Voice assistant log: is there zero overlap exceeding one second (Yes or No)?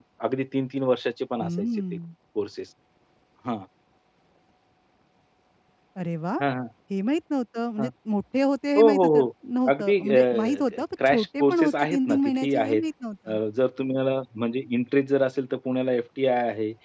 No